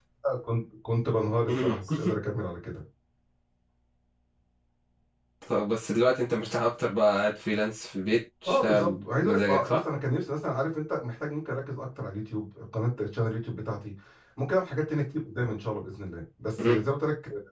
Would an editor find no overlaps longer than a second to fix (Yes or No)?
No